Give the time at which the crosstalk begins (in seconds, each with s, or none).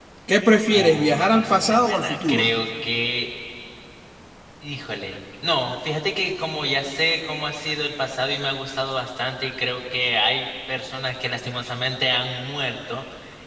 0.7 s